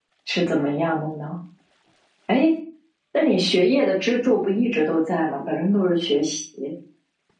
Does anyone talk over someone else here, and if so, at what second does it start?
none

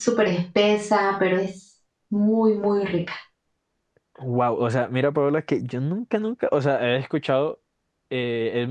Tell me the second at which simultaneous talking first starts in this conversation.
none

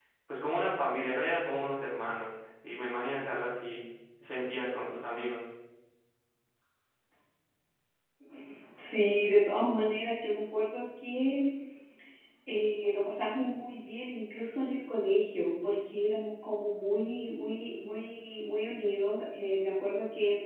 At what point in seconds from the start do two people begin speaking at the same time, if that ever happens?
none

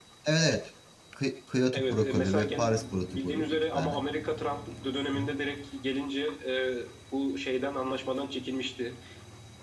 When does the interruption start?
2 s

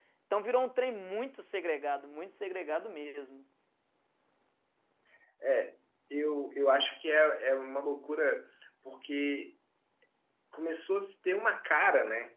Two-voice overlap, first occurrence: none

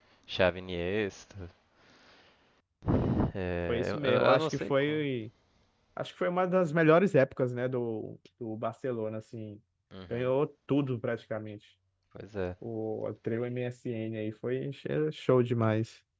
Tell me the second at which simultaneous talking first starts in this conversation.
4 s

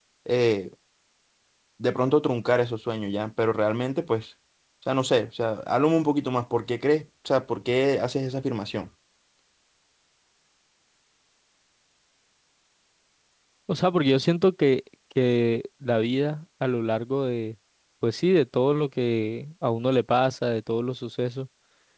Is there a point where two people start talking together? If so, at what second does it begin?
none

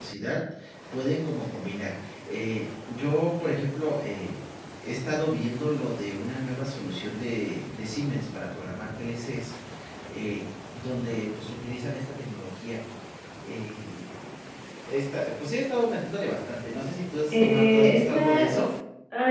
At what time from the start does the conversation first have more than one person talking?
17 s

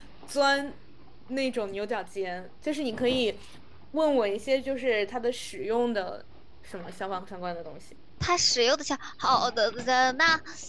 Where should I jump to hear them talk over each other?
none

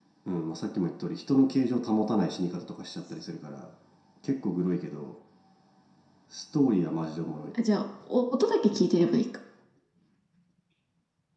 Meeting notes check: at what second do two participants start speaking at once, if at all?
none

